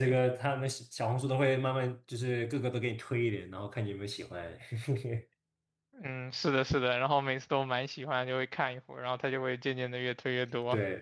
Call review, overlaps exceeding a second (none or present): none